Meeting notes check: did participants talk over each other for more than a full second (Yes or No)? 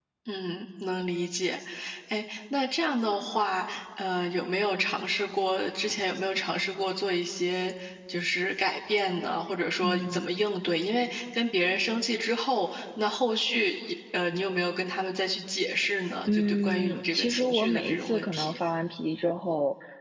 Yes